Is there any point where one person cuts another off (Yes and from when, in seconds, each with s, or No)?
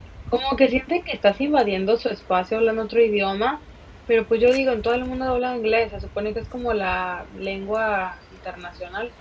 No